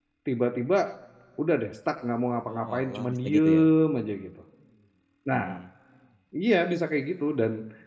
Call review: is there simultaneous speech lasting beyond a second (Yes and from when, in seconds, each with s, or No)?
Yes, from 2.5 s